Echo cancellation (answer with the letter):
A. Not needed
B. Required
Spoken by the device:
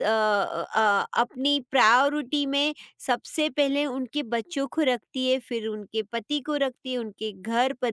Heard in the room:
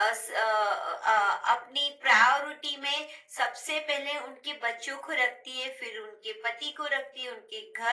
B